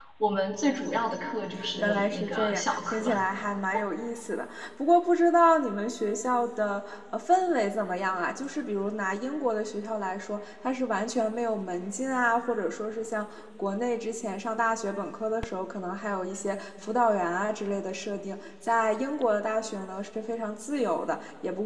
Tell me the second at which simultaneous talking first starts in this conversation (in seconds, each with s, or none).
1.8 s